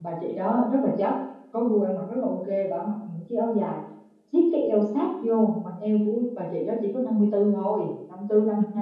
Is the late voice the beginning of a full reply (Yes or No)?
Yes